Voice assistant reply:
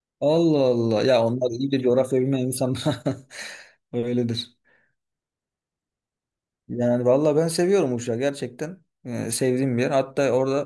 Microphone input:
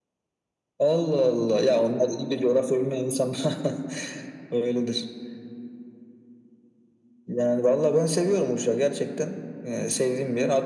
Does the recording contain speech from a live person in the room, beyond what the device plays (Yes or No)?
No